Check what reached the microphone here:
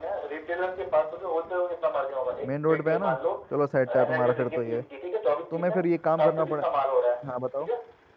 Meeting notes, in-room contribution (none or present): present